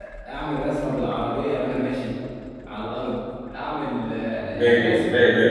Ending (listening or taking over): taking over